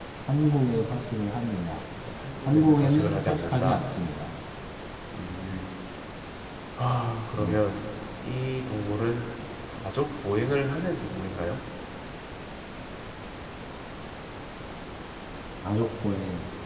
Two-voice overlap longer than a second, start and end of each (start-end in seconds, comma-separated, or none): 2.5-3.8